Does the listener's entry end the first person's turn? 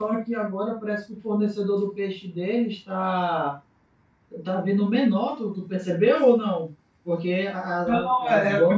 Yes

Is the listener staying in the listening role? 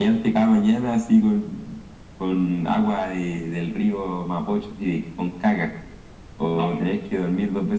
Yes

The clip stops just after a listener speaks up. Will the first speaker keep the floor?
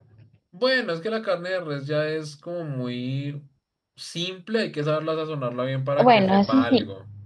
No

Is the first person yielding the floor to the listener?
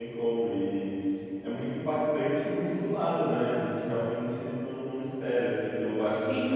No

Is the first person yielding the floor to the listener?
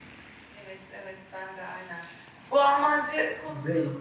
No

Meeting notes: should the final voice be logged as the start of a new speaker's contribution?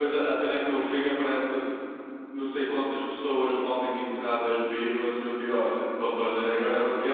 No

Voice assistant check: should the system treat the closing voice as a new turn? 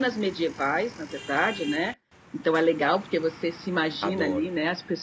No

